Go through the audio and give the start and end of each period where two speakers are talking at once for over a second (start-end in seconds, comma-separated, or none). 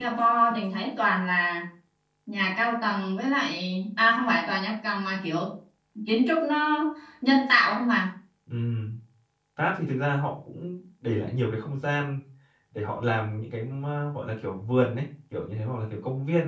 none